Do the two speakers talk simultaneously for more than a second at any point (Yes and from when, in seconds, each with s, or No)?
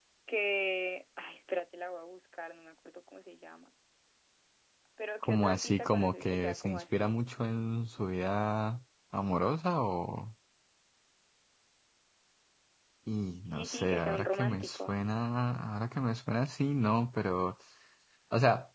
Yes, from 5.2 s